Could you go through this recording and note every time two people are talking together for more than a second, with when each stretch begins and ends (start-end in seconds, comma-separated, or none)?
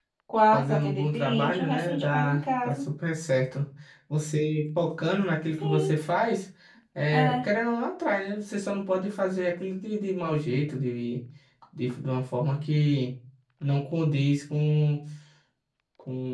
0.5-2.8